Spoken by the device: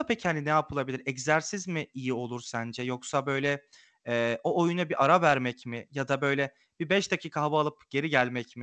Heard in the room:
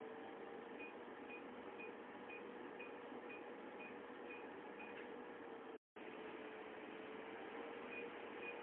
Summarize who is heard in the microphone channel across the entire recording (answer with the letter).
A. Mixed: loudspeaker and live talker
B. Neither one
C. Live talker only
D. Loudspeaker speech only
B